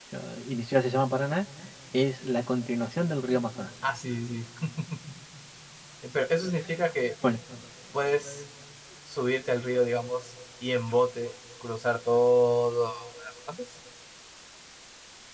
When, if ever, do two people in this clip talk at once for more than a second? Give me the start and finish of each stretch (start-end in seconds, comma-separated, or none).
none